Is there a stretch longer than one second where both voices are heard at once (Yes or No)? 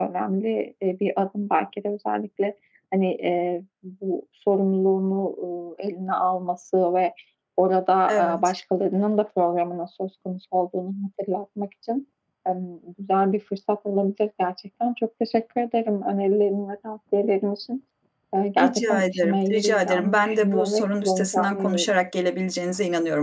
Yes